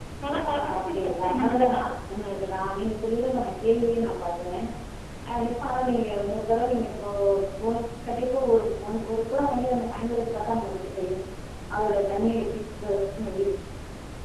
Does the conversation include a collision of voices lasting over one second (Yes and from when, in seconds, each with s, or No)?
Yes, from 0.5 s